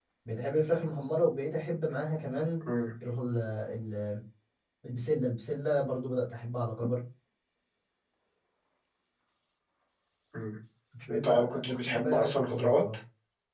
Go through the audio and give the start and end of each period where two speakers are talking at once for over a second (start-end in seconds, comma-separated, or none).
11.1-12.8